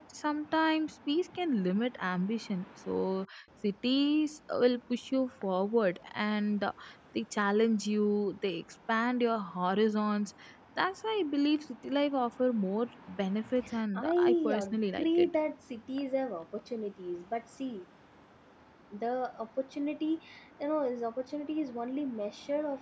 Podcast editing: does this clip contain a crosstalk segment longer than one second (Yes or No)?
Yes